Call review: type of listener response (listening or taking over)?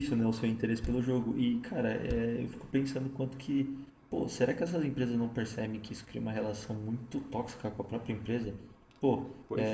listening